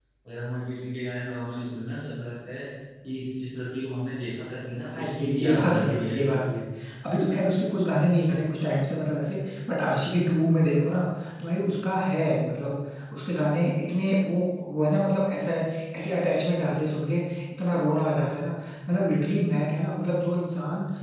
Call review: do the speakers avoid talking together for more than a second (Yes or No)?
No